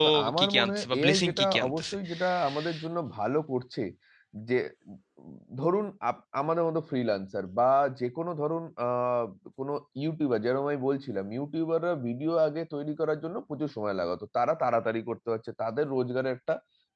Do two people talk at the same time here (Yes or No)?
Yes